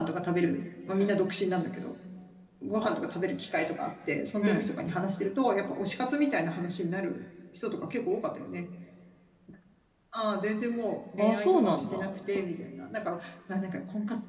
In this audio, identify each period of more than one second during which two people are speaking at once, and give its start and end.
11.2-12.4

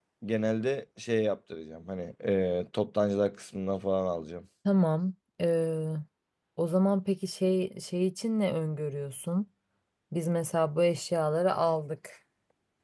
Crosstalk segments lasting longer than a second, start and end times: none

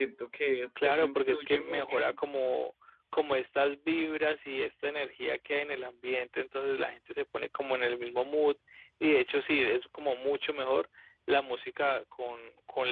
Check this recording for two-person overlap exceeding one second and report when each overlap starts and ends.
0.8-2.2

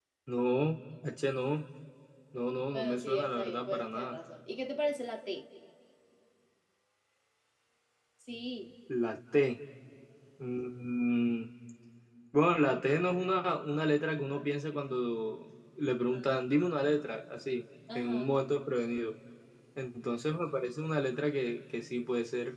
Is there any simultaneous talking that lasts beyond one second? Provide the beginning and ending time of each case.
2.7-4.2

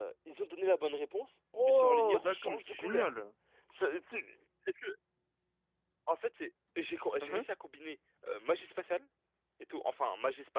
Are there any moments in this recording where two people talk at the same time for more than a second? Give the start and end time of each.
1.6-3.1

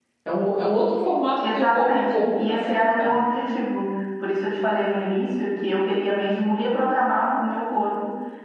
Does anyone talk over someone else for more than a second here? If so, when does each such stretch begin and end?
1.5-3.1

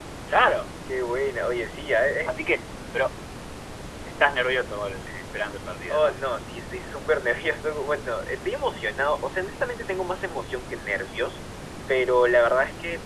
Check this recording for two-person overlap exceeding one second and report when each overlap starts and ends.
none

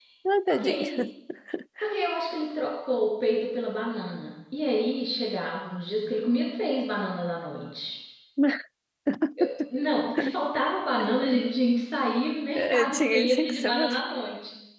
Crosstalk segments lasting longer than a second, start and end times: 12.6-13.9

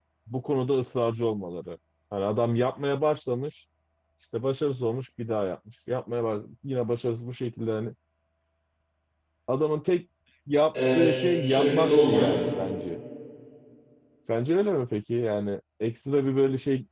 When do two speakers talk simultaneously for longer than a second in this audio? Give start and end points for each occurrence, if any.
10.7-12.2

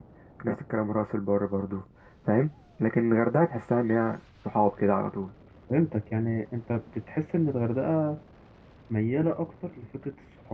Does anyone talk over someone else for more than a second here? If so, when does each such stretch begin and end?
none

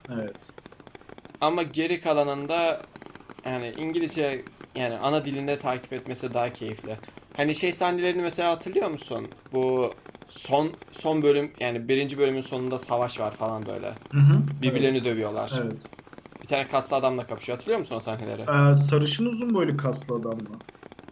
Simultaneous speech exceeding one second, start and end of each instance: none

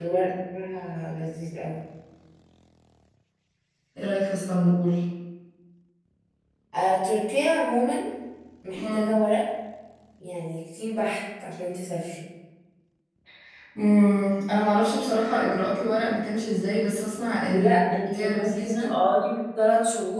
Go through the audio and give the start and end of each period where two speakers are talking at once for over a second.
17.5-18.9

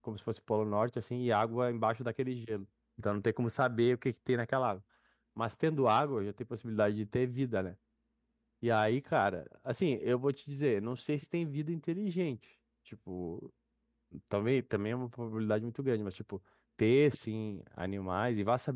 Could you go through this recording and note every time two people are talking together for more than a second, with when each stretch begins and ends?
none

